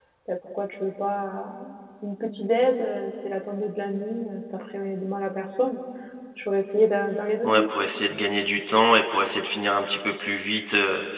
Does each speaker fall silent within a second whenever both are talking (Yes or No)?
Yes